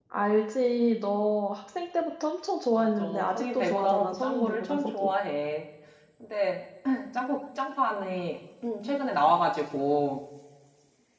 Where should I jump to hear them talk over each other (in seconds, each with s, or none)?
2.7 s